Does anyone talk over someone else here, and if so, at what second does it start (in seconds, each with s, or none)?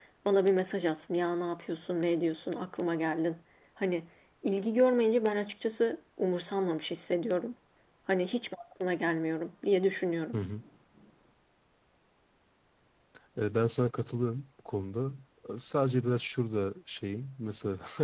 none